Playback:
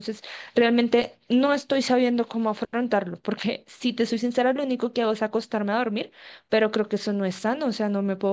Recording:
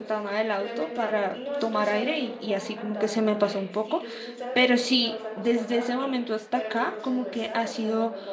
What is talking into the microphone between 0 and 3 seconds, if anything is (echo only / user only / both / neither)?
both